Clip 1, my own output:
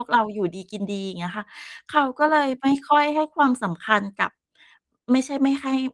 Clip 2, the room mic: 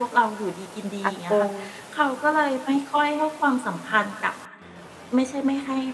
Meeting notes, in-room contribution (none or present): present